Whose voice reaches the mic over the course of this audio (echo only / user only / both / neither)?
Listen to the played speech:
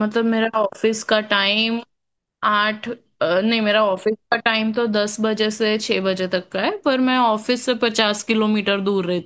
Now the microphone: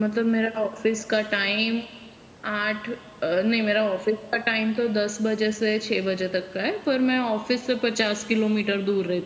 echo only